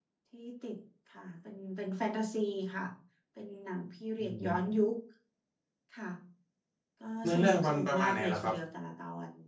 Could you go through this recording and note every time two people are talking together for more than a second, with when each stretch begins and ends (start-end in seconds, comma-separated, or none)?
7.2-8.5